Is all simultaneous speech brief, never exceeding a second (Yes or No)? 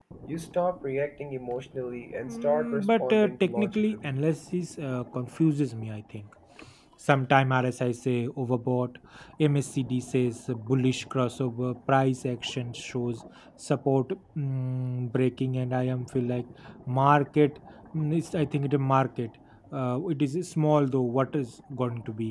No